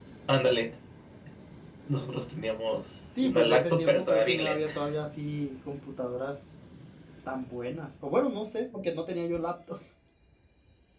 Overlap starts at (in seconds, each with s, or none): 3.1 s